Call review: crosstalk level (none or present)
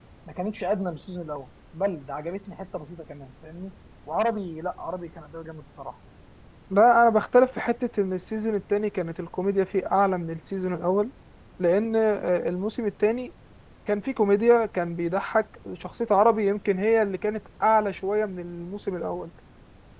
none